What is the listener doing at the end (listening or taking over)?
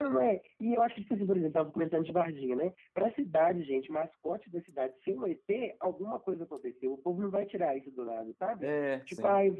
listening